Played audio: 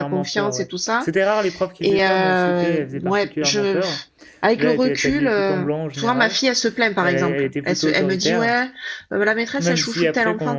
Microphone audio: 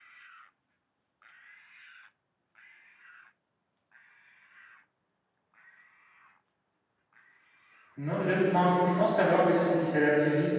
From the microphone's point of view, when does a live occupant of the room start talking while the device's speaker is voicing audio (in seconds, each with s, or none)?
8.0 s